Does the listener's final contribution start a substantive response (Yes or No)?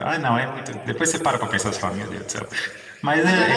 Yes